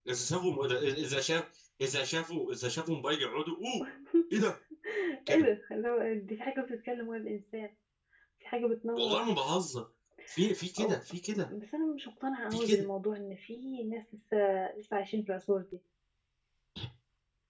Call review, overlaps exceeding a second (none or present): none